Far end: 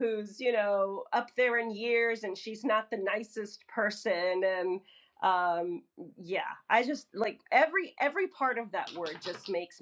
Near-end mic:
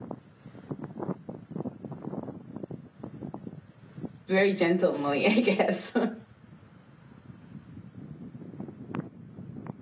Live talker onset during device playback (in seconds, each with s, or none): 4.3 s